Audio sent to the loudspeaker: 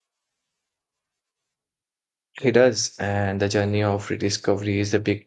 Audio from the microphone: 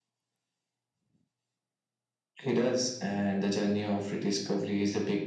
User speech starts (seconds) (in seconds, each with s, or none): none